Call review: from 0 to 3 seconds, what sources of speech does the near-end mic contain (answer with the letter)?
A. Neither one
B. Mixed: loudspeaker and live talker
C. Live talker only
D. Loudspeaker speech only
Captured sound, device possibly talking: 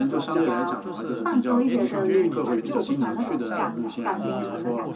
B